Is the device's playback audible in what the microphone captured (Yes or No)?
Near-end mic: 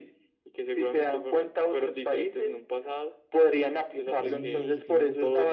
Yes